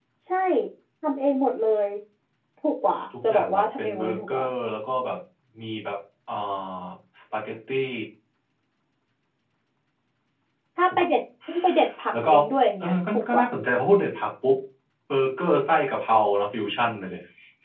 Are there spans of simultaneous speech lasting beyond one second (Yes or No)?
Yes